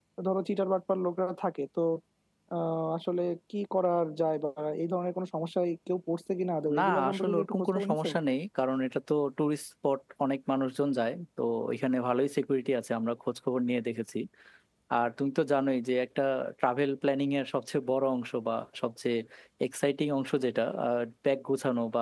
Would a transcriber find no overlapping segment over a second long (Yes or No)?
No